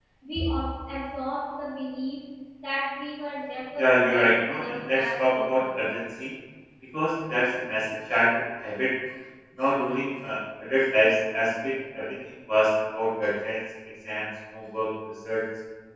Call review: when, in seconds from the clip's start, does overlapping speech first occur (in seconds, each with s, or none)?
3.8 s